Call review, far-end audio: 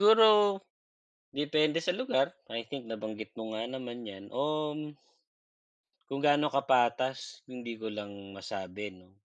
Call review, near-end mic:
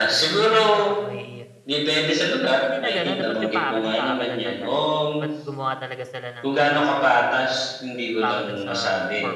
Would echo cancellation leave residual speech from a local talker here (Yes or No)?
Yes